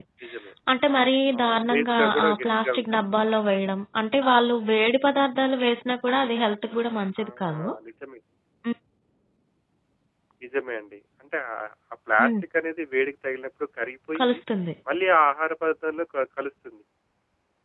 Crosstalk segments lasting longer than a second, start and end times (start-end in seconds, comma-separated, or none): 1.4-3.0